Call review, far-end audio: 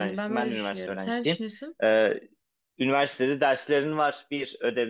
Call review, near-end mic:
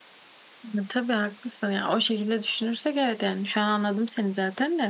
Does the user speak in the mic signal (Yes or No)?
Yes